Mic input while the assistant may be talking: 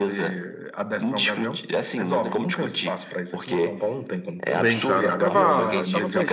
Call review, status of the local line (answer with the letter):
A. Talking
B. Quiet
A